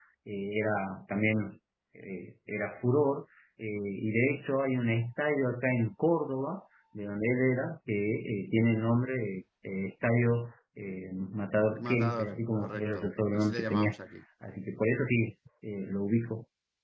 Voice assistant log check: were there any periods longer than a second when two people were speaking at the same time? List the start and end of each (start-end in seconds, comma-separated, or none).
11.9-13.9